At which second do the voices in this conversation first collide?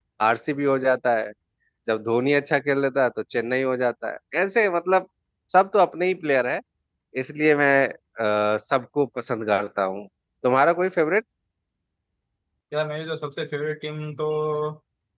none

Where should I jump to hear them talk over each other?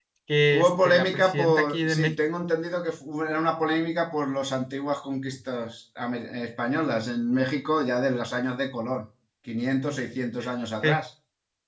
0.5 s

